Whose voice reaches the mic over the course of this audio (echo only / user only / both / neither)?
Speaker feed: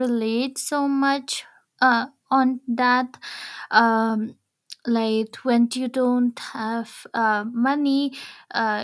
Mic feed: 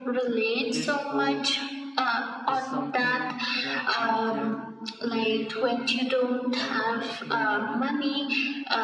both